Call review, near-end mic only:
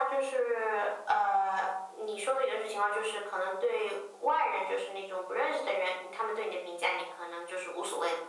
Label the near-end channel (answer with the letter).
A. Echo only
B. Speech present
A